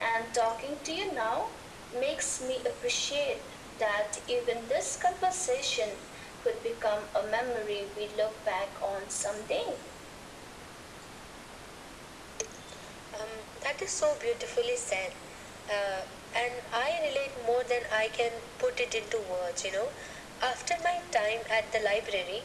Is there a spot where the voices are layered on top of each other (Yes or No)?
No